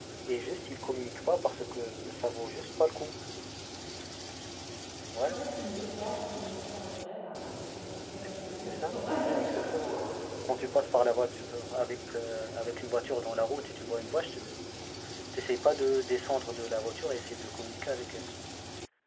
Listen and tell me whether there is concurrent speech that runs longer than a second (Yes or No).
Yes